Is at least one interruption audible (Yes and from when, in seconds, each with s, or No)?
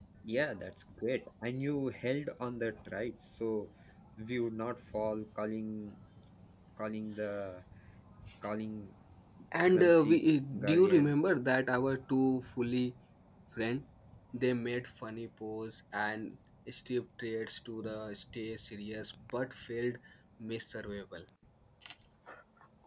Yes, from 9.7 s